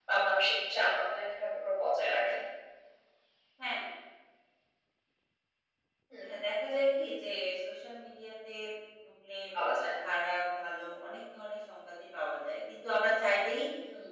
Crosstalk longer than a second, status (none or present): none